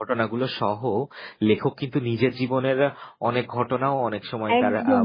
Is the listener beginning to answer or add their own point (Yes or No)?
Yes